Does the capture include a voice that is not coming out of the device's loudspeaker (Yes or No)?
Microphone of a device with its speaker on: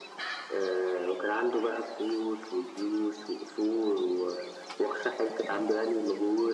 No